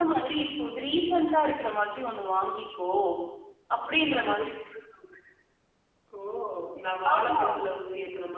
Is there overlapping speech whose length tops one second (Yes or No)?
No